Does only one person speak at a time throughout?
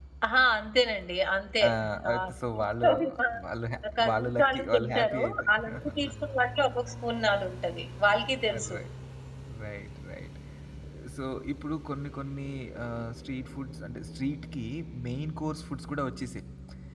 No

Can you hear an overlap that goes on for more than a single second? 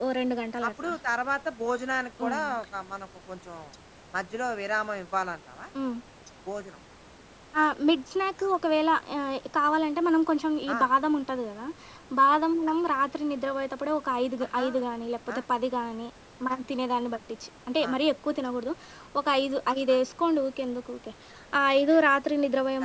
No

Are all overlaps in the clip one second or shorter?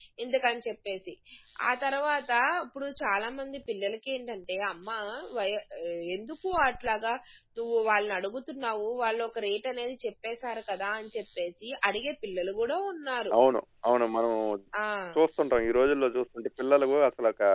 Yes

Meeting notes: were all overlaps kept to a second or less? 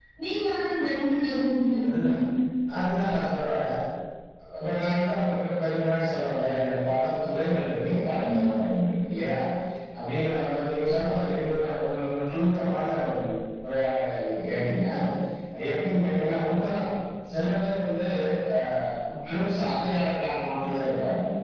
Yes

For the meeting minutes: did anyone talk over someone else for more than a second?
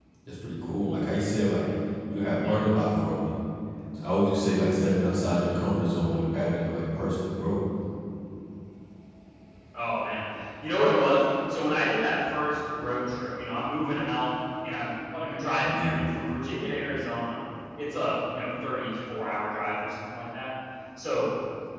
No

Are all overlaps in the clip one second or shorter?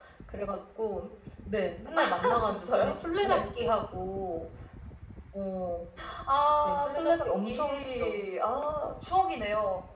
No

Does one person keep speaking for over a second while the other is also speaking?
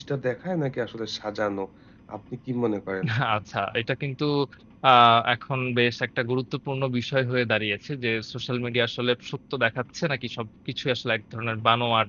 No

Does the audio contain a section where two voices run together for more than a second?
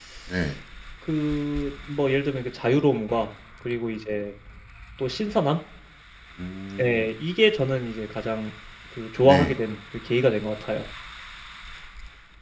No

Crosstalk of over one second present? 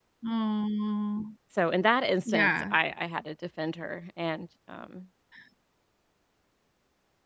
No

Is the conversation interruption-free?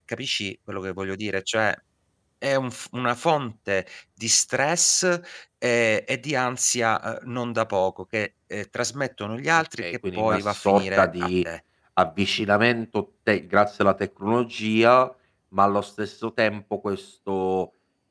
No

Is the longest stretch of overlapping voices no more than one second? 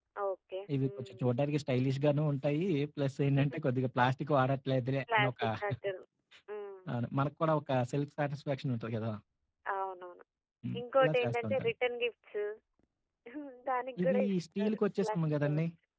No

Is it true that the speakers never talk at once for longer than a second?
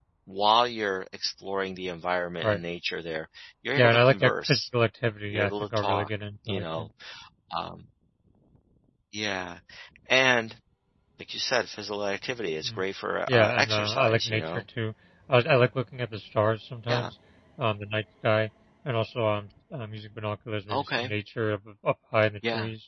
No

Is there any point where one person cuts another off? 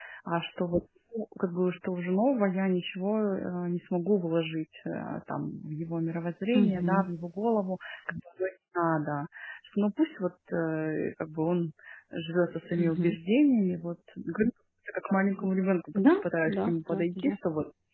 Yes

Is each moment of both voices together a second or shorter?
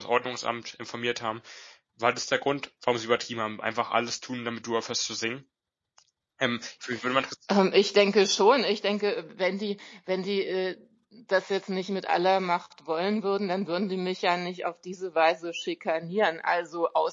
Yes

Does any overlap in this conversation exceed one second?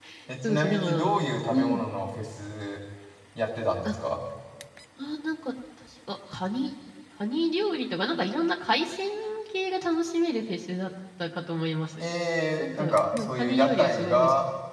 Yes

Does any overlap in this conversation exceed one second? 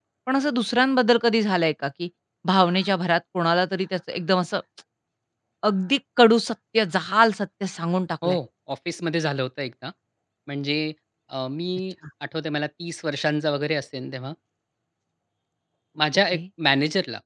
No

